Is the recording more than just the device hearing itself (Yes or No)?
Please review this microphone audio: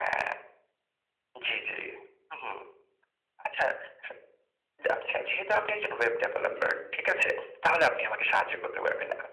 Yes